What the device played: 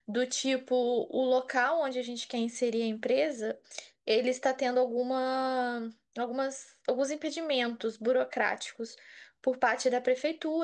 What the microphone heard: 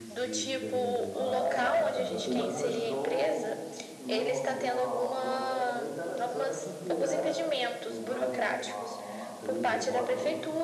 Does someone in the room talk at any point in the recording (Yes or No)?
Yes